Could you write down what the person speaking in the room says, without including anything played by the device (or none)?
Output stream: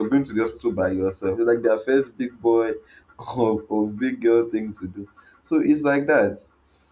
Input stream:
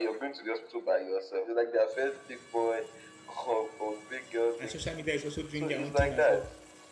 And social media is also doing their own thing as well.